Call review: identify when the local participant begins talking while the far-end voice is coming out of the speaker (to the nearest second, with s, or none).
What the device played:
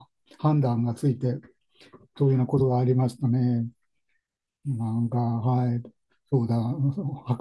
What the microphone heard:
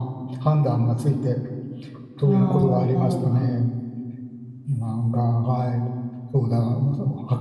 2 s